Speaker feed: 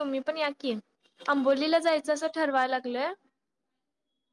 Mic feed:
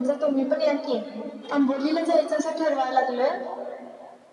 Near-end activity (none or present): none